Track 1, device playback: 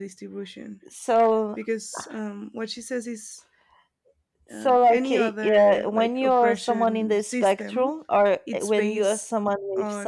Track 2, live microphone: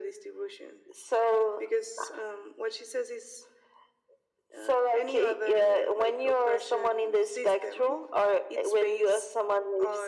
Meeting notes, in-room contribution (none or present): none